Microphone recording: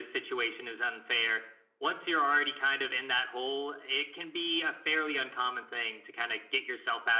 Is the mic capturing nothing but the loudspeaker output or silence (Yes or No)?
Yes